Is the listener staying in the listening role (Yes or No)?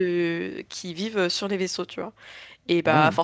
Yes